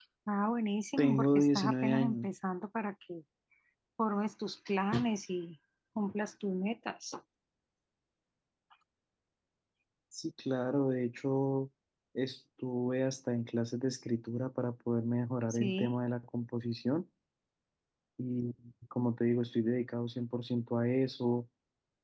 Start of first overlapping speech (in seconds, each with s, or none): 1.0 s